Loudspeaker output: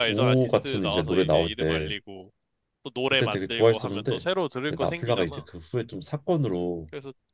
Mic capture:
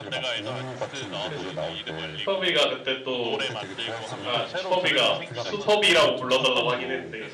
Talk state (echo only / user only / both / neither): both